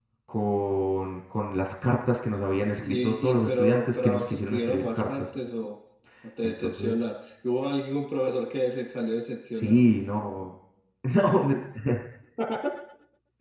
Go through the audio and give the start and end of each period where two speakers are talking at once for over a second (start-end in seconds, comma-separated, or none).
2.8-5.2